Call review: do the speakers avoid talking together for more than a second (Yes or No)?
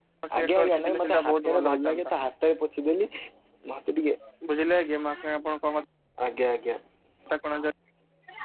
No